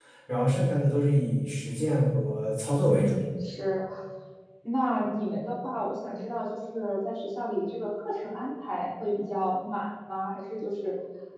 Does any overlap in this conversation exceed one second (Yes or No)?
No